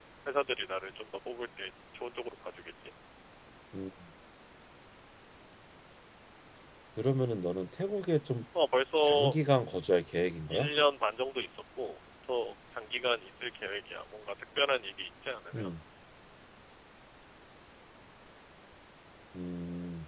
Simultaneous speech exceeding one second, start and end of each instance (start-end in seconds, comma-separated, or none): none